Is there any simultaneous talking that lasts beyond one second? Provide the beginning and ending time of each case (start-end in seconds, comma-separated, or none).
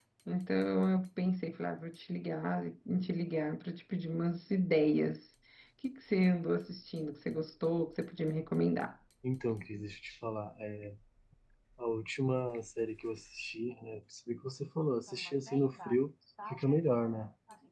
none